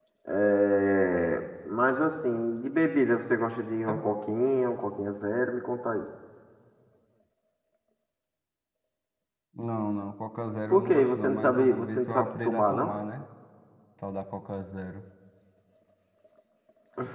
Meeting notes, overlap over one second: present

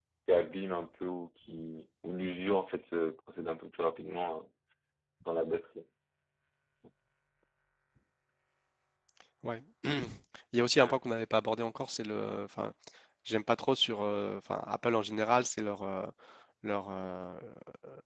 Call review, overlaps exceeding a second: none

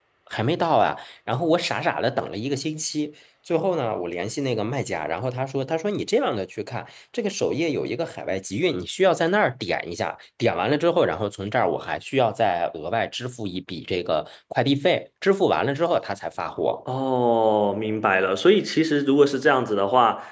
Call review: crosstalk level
none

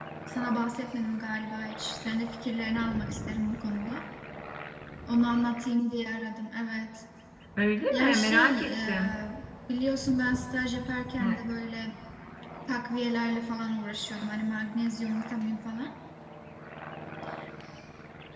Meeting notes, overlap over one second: present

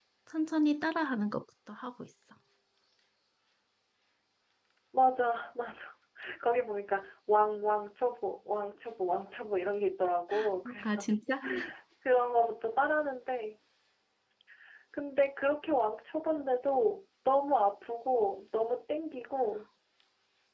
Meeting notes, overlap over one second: none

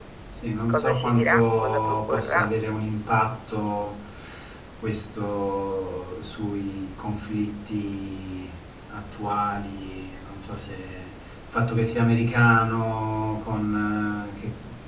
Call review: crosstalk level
present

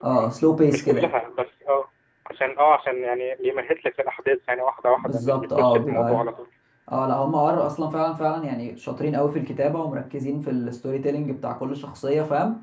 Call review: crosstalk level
present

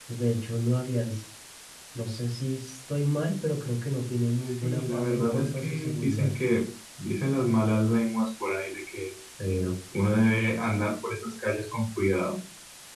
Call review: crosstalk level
present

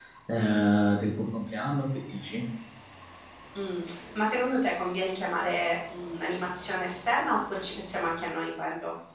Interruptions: none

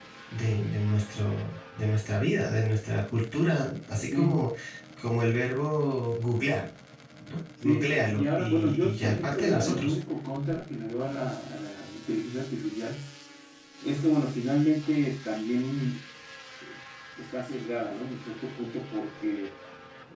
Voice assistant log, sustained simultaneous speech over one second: present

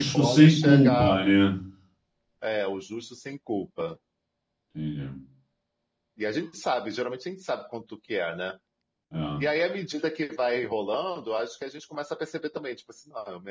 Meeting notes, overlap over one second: present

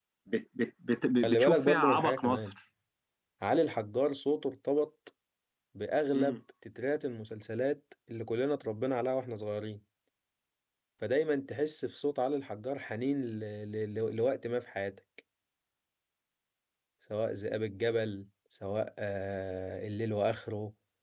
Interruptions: present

